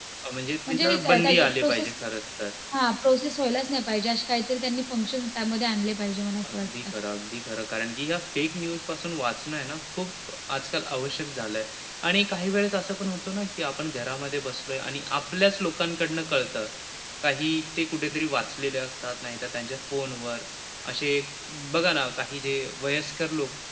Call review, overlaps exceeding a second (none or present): present